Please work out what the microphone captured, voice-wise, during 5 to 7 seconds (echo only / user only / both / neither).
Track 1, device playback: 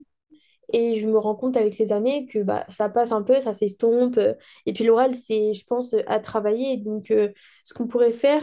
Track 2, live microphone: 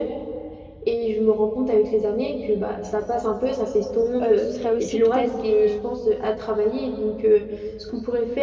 both